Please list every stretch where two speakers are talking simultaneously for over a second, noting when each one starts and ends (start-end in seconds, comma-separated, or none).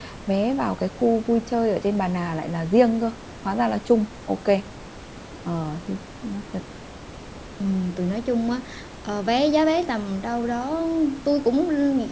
none